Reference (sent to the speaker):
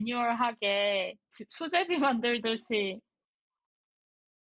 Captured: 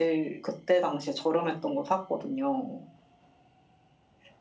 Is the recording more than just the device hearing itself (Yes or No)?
Yes